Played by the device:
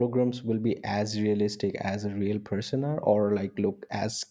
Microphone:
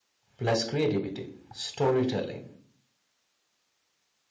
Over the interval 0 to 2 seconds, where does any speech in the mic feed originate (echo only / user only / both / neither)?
user only